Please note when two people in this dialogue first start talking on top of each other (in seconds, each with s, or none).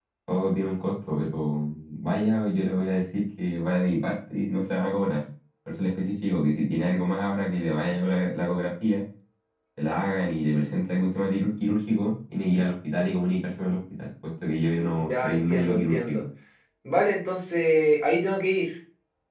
14.8 s